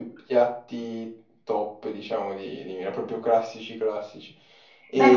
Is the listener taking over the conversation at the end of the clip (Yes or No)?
Yes